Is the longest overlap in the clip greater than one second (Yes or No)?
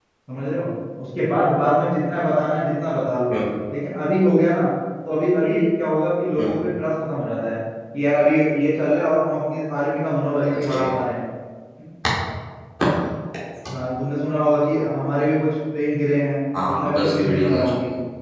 Yes